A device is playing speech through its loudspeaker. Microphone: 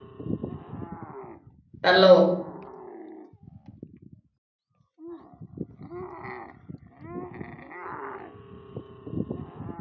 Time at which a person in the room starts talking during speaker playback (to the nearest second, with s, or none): 2 s